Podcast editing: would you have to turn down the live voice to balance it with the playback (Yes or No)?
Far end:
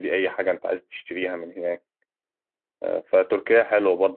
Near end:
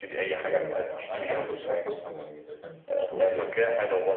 No